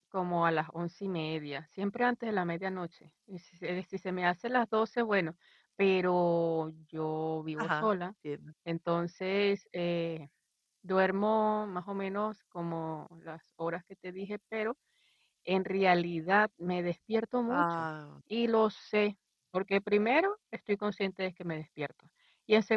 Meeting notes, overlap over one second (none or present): none